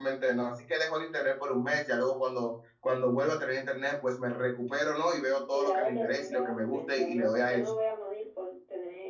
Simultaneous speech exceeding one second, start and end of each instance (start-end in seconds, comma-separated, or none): 5.5-7.7